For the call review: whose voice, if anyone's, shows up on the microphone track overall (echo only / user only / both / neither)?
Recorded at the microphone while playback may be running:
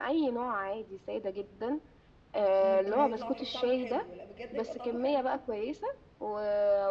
both